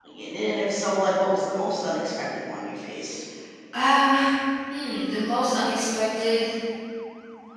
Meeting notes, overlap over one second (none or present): none